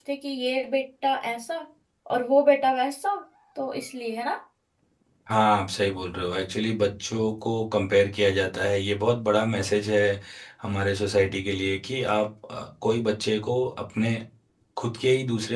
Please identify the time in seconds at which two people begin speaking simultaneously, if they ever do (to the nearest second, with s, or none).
none